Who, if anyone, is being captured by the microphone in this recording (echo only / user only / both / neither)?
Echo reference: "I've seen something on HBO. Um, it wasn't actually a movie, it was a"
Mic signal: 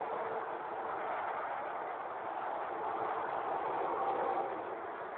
neither